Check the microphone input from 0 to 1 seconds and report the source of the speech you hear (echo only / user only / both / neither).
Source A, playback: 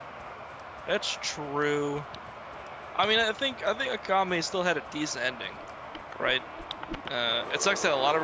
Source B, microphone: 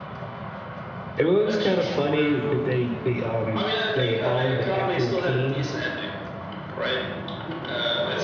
neither